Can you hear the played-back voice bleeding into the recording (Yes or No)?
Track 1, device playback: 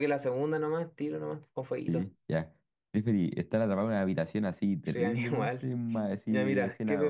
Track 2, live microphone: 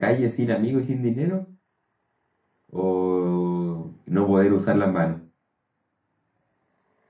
No